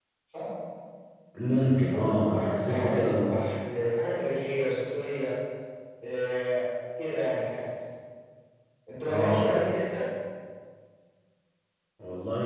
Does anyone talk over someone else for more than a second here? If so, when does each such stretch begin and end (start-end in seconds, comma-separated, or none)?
1.9-3.4